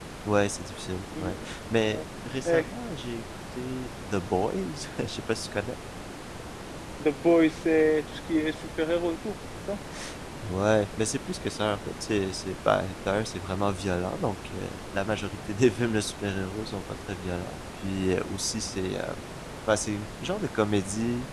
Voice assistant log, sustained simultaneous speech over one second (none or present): none